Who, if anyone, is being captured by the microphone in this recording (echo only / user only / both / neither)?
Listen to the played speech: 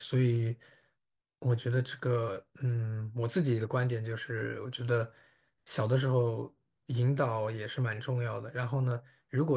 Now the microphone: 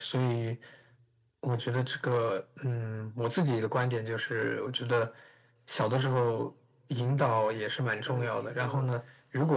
both